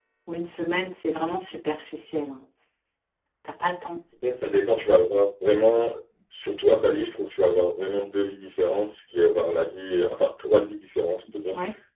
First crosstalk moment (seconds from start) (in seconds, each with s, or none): none